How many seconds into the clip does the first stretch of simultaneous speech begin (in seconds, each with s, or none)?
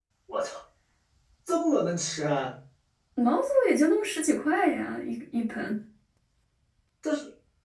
none